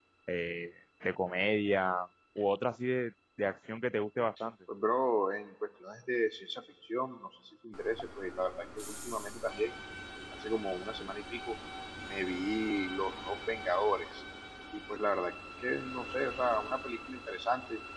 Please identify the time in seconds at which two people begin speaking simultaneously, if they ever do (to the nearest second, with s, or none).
none